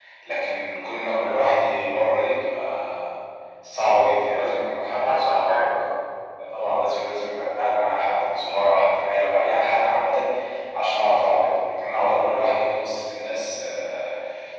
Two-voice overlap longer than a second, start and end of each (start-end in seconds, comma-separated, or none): 4.3-5.7